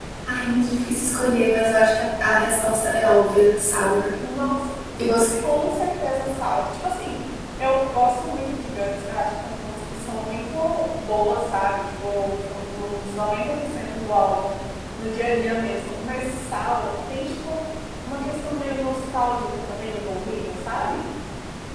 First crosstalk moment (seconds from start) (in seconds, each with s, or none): none